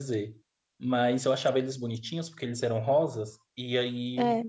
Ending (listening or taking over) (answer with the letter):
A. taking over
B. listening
B